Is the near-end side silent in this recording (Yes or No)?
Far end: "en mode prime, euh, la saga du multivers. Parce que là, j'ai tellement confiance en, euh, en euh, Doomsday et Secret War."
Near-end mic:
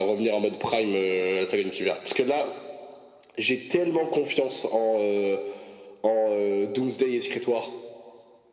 Yes